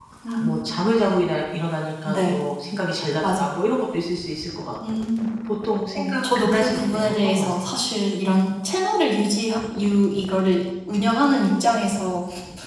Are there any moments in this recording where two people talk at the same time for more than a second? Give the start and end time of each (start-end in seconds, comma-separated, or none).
6.0-7.7